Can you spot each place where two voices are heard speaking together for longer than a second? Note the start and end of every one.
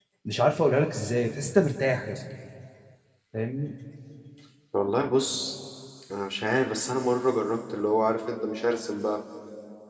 none

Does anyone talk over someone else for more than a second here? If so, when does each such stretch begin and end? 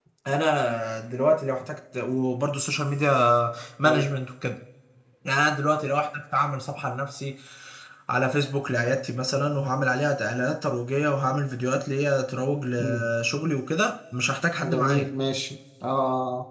none

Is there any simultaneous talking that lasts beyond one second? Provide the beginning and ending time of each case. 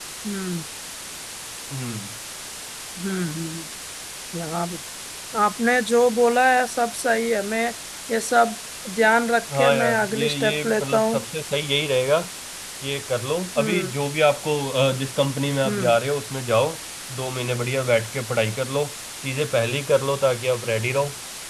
9.5-11.2

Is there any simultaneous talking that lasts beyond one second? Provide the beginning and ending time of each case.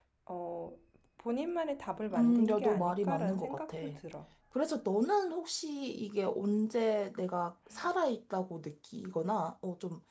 2.1-3.8

